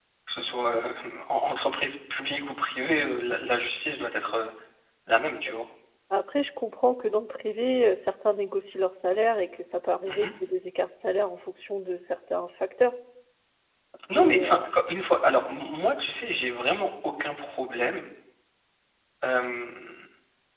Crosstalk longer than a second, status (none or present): none